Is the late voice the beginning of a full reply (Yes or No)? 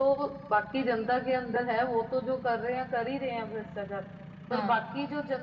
No